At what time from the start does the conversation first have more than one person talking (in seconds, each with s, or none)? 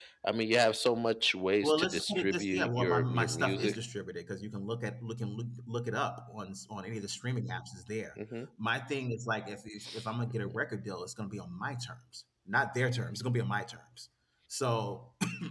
1.6 s